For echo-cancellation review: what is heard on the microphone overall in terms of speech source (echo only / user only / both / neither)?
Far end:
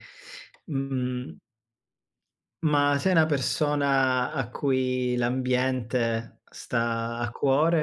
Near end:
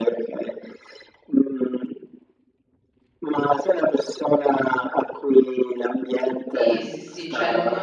both